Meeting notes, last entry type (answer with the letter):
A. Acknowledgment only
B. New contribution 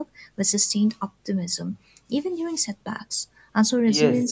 B